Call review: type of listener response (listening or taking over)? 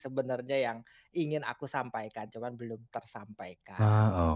taking over